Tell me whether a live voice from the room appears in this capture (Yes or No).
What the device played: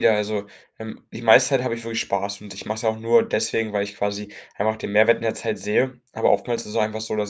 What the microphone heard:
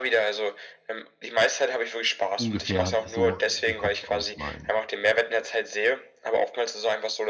Yes